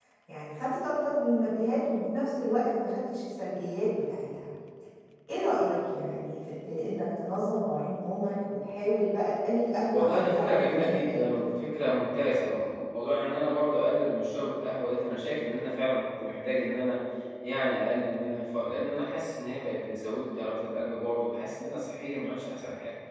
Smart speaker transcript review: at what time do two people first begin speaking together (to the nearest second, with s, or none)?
10 s